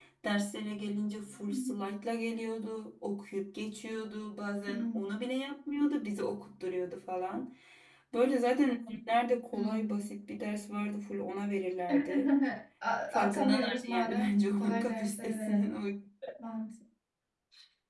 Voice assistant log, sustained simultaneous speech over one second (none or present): present